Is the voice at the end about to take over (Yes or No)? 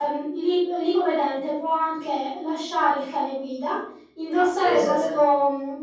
No